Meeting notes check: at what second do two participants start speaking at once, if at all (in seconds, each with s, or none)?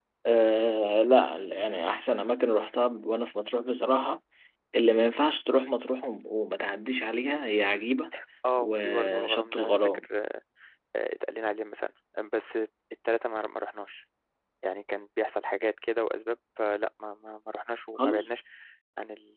8.6 s